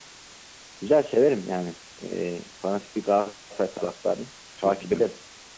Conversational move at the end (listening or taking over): taking over